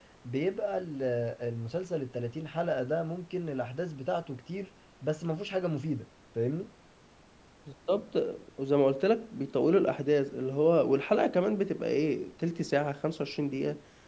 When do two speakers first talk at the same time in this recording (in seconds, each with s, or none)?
none